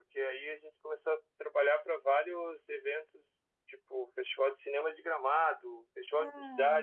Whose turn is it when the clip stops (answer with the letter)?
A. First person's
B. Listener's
A